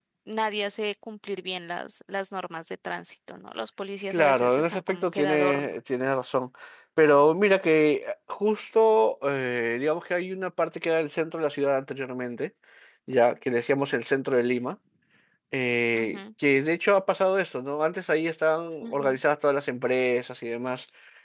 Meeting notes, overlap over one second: present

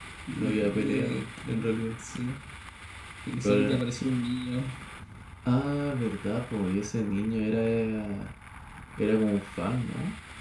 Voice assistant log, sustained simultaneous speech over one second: present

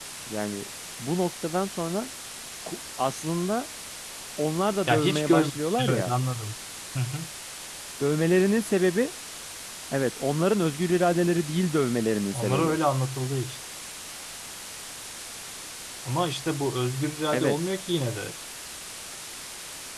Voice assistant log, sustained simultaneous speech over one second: present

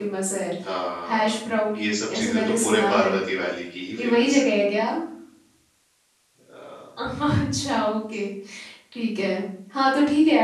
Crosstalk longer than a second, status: present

